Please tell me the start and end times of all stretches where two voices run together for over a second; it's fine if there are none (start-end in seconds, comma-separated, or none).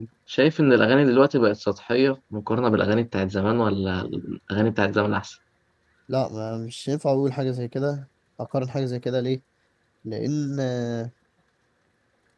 none